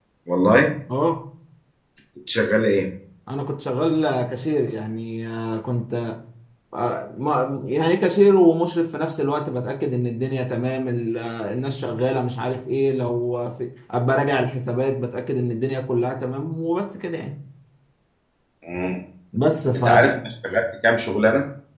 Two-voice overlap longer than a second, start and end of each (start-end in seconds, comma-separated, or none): none